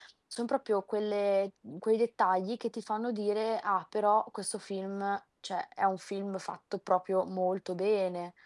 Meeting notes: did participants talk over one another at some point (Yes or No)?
No